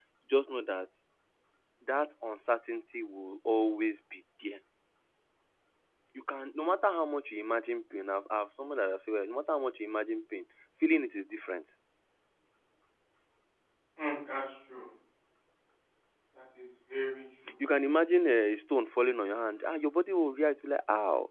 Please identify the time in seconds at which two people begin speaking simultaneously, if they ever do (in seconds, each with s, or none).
none